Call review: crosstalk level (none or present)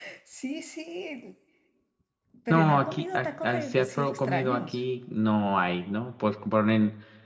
present